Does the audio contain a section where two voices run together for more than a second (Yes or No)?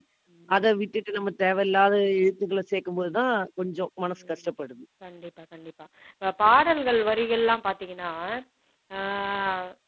No